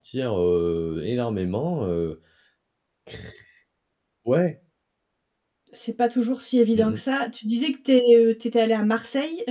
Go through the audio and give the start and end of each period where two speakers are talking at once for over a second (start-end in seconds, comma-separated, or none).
none